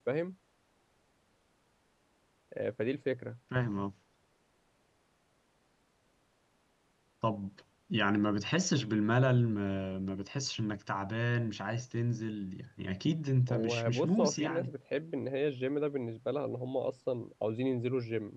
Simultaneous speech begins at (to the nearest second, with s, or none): 13 s